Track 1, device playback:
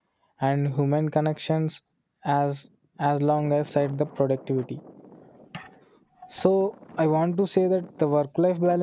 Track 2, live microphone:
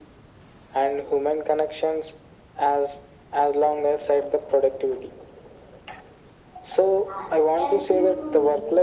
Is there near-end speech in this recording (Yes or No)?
Yes